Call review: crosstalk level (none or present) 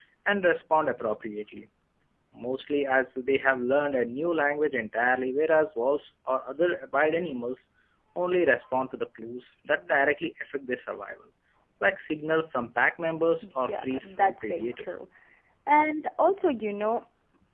present